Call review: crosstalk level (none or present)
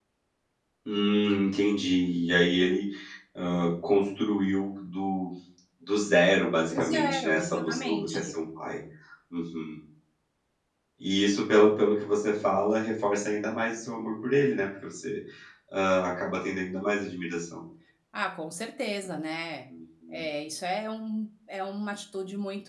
present